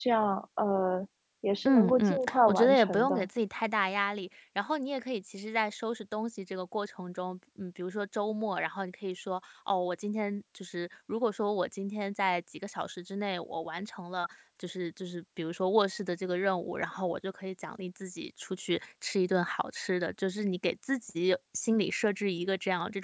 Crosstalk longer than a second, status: present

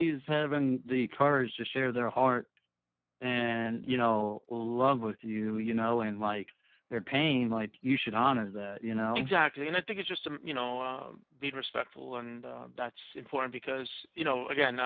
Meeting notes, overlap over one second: none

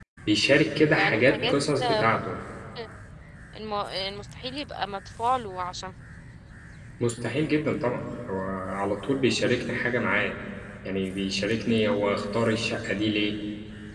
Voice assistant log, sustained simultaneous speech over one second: present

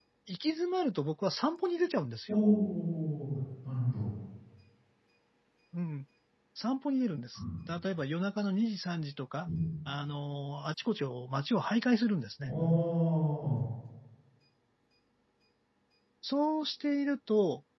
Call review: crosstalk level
none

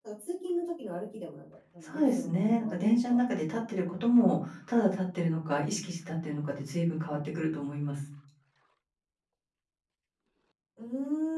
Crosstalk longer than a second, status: present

